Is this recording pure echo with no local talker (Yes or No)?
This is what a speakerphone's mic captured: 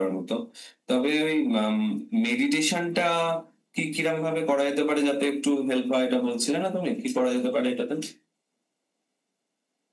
Yes